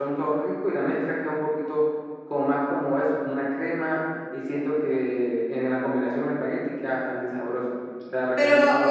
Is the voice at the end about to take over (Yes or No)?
Yes